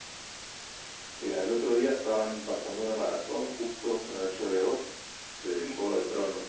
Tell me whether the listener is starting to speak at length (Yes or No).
No